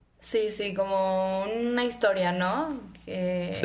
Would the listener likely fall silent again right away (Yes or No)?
Yes